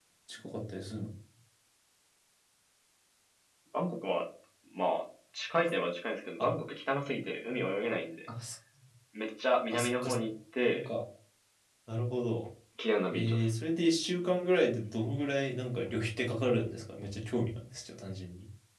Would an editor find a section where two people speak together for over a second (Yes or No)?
No